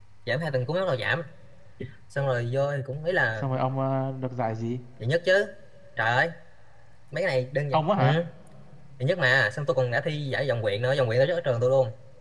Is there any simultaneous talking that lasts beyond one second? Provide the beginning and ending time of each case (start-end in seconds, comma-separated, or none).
none